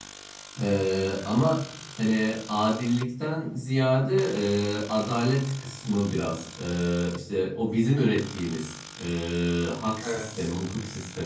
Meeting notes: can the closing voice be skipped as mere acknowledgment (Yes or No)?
Yes